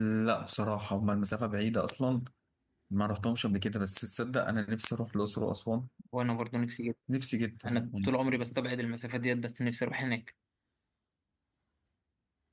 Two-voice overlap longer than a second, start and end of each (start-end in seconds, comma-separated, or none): none